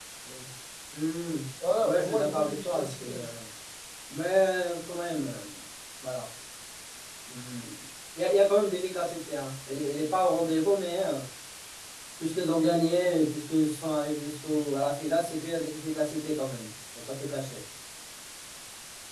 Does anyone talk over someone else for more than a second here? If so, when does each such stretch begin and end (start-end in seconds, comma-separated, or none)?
1.8-3.2